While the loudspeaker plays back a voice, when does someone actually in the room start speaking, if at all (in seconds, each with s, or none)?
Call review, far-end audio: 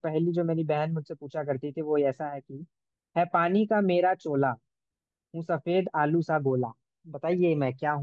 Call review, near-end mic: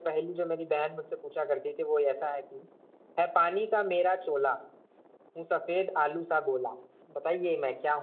none